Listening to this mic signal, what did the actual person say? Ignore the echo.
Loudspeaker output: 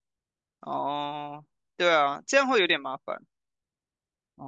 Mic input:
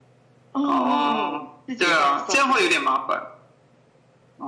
哦哦哦，自己换算这样，

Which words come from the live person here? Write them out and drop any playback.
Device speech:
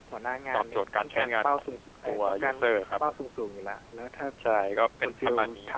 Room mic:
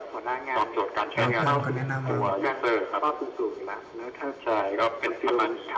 แล้วเพื่อนก็แนะนำมา

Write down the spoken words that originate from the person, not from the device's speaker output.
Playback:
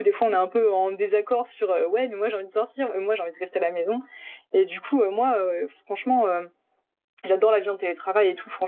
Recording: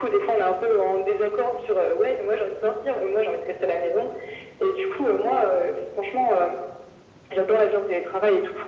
none

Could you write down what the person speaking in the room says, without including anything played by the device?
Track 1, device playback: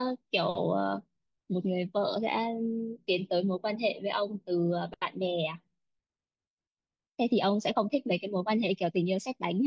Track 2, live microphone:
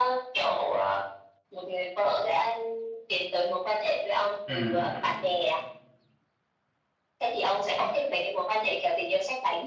ừ

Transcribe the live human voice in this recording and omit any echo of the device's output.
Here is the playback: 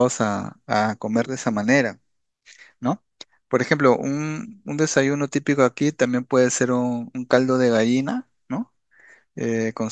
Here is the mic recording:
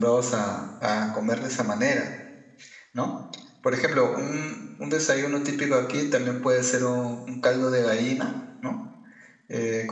none

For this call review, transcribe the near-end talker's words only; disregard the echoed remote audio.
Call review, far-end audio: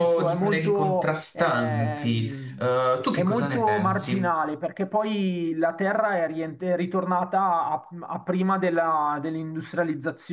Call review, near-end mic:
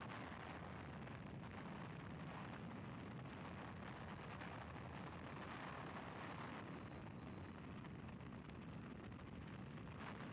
none

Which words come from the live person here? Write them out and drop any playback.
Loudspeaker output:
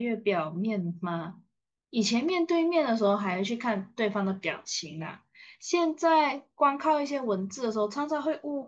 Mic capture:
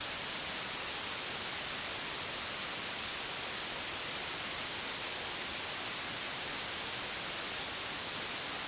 none

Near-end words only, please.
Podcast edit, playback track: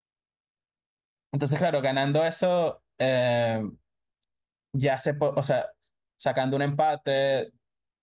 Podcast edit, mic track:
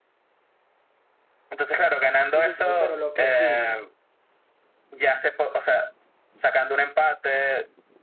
Sí, sí, no, pero lo que sí,

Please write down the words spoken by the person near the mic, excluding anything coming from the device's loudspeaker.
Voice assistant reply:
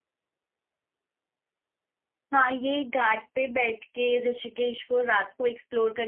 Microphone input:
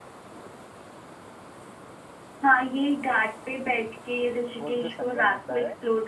वो जो संगम होता है

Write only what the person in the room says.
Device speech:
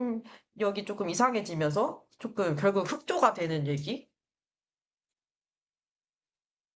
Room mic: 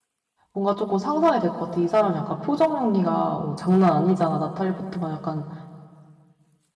뭔가 조금 상상이 될 것 같아. 이 사람 약간 표정 연기가 어, 장난 아니잖아. 나탈리 포트만 약간

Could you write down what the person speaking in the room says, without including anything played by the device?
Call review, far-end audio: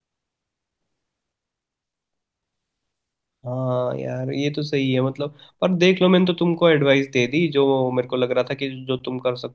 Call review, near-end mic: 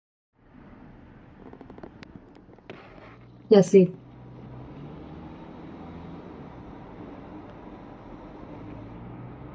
जैसे

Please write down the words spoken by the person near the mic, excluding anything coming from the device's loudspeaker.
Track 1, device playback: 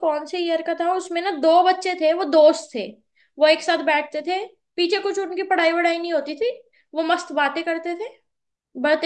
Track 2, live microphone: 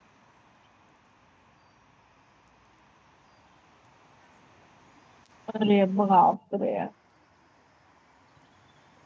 अरे बाप रे

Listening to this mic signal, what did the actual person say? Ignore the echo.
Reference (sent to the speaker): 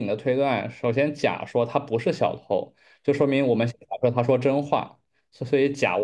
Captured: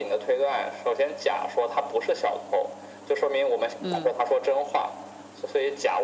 嗯

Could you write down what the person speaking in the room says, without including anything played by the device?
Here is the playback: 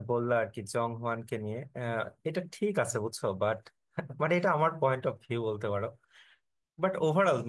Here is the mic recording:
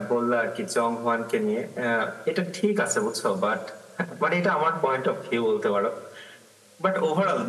none

